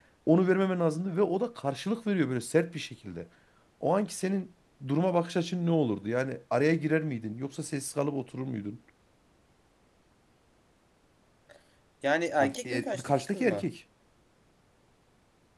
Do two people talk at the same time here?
Yes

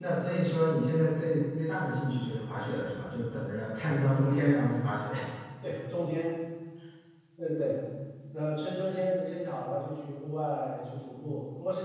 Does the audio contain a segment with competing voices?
No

